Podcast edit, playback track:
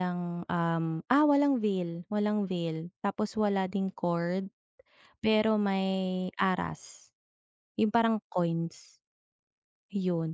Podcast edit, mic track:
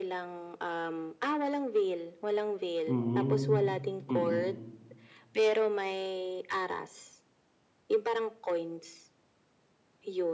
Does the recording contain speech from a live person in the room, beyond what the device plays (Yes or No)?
Yes